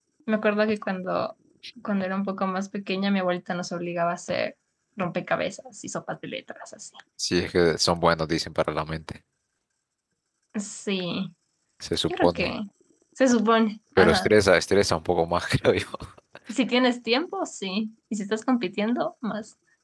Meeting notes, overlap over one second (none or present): none